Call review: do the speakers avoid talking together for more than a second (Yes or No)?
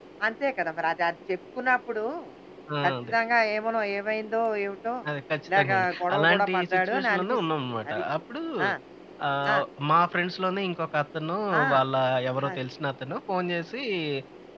No